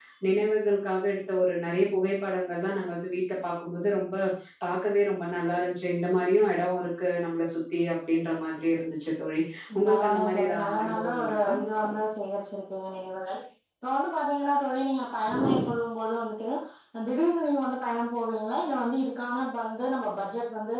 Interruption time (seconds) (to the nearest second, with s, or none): 10 s